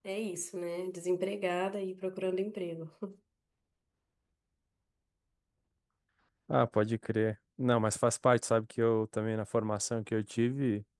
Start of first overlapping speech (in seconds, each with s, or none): none